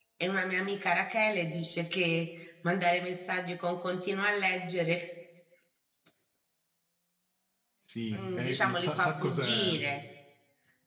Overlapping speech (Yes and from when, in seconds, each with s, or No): Yes, from 8.2 s